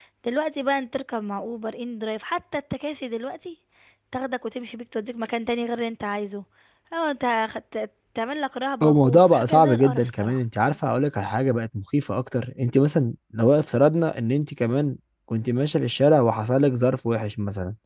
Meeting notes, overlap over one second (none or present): present